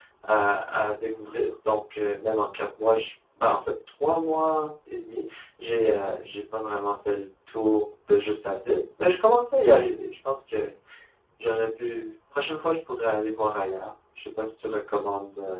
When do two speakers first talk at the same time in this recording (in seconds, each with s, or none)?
none